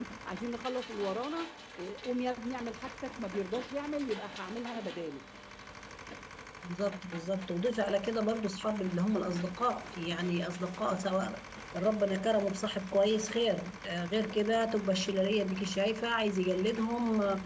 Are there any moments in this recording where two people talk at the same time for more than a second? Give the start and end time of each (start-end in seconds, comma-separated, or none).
none